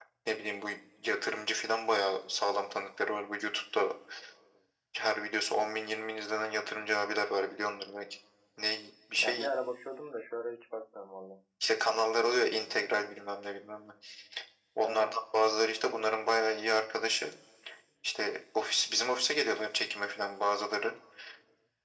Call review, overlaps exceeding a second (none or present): none